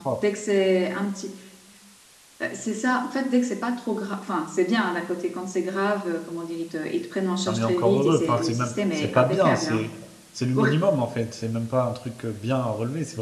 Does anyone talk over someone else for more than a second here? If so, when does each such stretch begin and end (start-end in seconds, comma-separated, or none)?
7.5-9.8